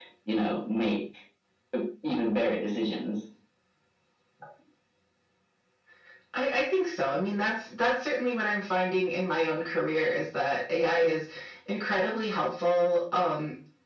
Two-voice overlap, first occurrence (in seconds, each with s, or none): none